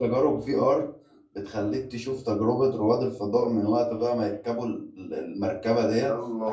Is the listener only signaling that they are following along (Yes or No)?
Yes